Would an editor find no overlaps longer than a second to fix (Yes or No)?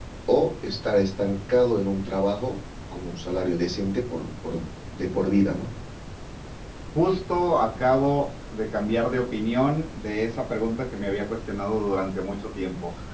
Yes